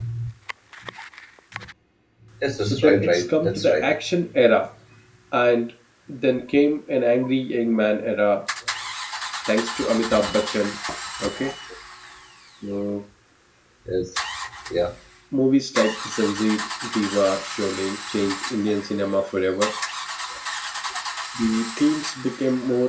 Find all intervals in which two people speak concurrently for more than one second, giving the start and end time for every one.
2.6-3.9

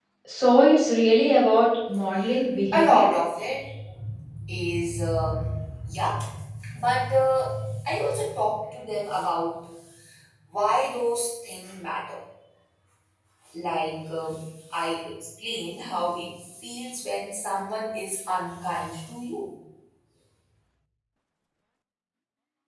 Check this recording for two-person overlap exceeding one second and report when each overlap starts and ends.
none

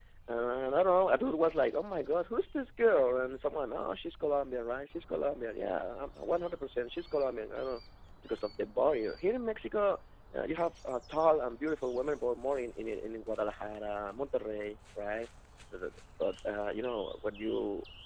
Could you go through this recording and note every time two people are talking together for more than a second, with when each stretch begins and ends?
none

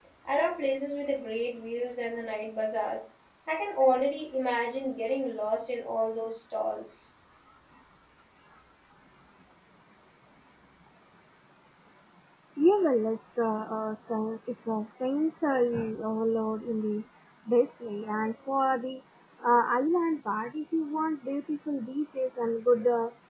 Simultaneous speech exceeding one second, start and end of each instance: none

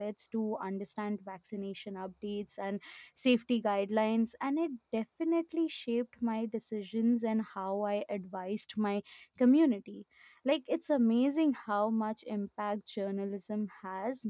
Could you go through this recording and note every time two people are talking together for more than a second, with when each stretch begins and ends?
none

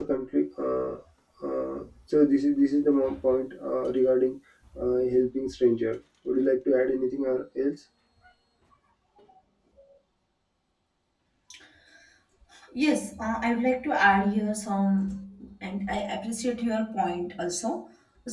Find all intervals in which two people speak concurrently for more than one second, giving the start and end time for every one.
none

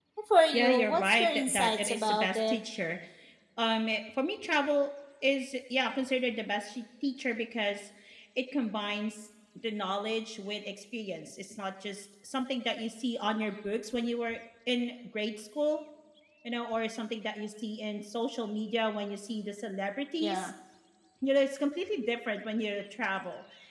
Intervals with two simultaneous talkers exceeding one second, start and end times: 0.5-2.6

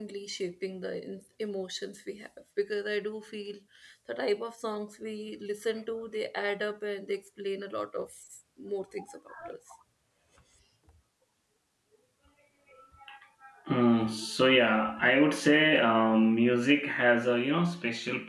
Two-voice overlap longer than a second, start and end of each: none

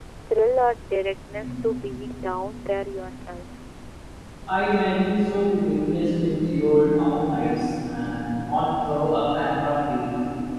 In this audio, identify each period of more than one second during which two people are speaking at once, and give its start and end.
none

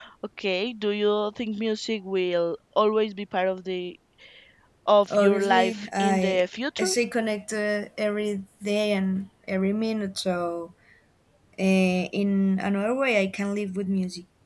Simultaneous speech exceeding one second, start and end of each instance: 5.1-6.4

